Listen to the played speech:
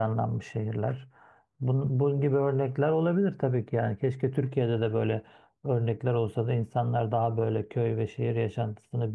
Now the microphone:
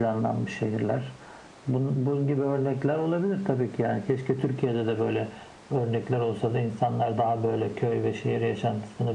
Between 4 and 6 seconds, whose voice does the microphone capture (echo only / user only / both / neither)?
echo only